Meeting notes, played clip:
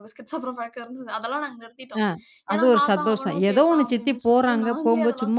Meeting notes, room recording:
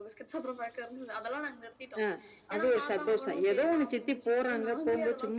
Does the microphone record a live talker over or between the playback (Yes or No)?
No